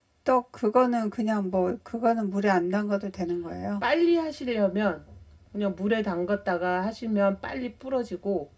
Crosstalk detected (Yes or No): No